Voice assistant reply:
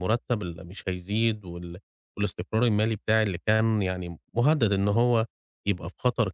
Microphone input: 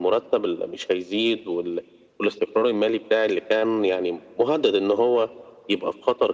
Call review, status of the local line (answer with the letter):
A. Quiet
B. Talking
A